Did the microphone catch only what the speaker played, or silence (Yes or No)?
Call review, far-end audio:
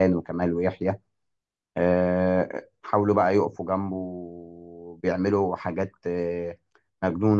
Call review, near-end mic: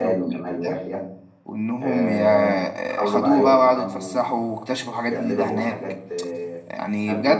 No